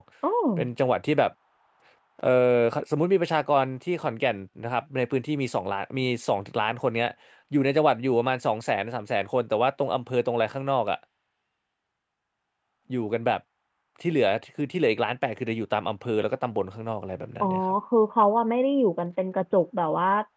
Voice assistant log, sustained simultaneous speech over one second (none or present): none